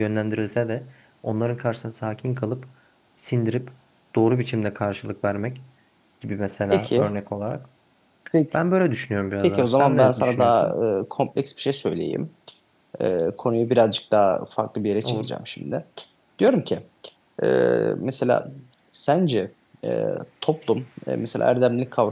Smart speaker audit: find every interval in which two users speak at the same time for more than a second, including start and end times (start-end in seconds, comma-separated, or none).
9.4-10.7